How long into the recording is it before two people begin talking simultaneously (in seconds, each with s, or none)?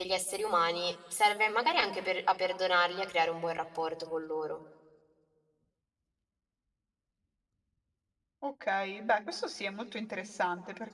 none